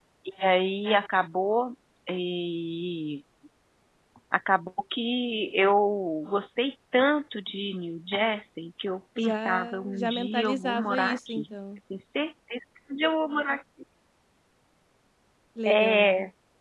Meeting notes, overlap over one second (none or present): present